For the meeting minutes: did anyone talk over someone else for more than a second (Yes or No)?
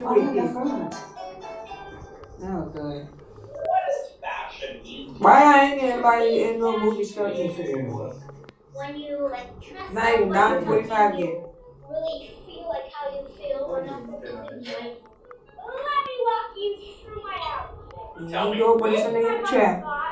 Yes